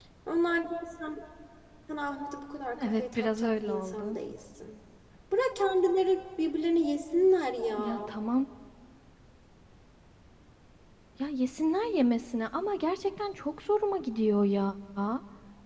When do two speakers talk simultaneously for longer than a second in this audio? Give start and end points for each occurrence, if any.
2.8-4.2

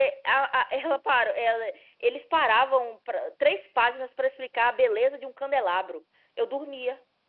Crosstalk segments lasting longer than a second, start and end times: none

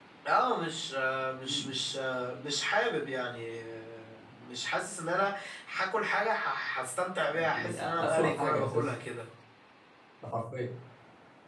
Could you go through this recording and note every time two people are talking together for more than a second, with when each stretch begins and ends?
7.3-8.9

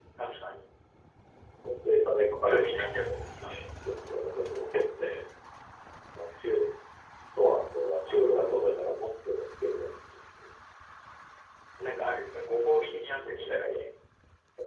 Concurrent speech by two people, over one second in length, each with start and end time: 12.4-13.9

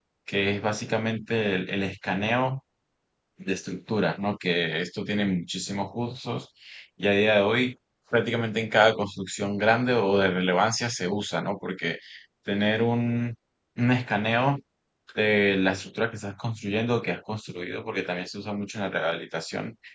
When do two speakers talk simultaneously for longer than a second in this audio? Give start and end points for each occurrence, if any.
none

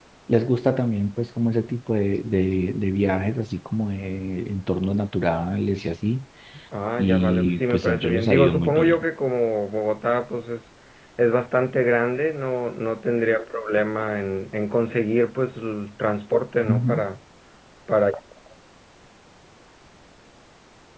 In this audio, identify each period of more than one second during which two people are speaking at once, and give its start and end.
7.0-9.0

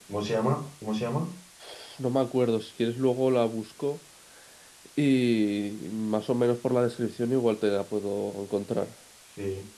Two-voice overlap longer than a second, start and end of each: none

